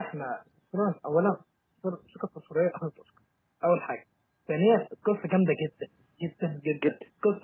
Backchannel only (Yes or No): Yes